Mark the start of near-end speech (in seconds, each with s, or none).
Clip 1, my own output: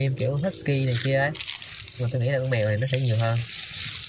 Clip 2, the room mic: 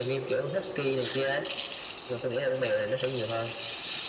none